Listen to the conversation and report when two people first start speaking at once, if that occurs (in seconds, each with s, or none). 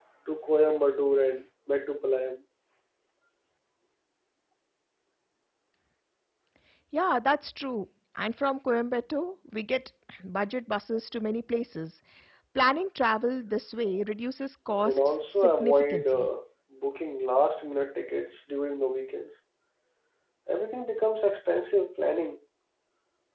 14.8 s